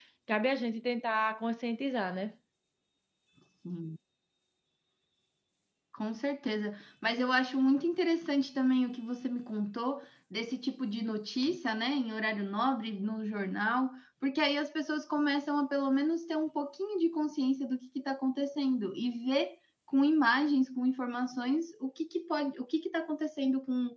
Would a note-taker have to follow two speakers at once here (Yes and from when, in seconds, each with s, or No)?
No